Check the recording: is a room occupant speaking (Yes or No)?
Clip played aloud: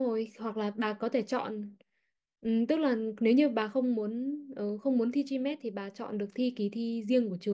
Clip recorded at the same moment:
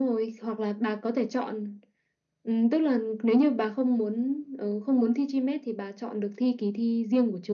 No